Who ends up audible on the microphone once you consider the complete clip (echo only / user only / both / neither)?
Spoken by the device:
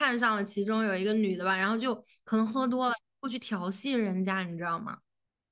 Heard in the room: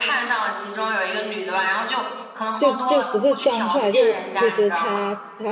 both